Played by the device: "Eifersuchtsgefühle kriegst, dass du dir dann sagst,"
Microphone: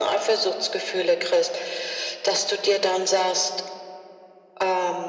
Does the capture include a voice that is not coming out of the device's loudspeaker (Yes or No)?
No